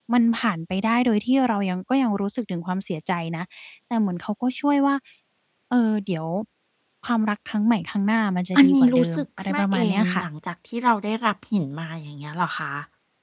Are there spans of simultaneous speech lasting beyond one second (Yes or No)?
Yes